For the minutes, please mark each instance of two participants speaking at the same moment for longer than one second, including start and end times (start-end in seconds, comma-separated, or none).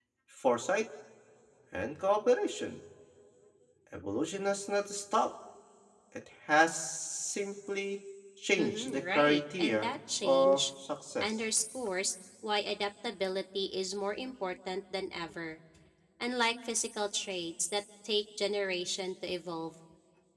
8.6-10.6